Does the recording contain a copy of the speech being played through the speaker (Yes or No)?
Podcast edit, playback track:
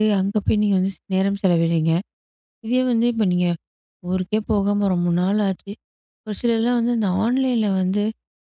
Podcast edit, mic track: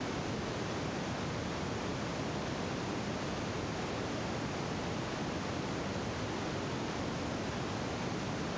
No